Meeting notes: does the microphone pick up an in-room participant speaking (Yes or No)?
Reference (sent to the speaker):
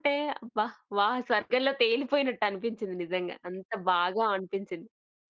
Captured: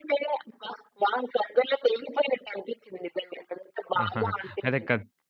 Yes